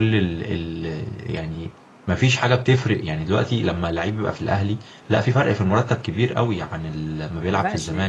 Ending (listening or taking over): taking over